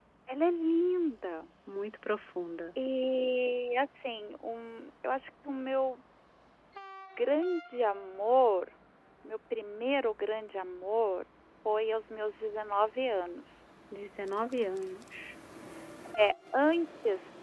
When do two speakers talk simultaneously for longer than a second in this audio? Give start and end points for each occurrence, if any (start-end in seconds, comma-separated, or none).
none